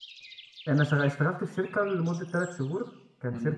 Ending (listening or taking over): listening